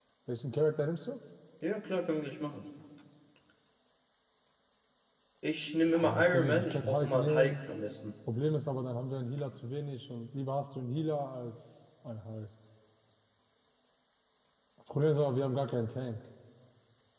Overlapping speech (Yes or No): Yes